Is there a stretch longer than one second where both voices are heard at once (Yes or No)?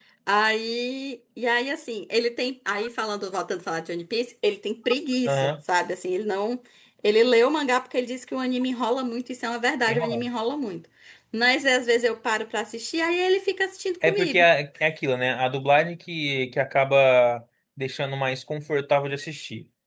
No